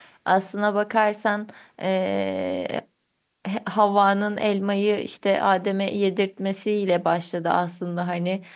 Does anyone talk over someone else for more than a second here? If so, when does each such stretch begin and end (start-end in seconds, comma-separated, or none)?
none